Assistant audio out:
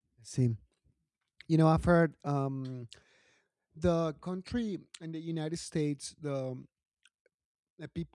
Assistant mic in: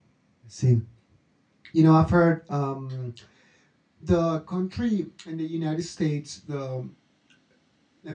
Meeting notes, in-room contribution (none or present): none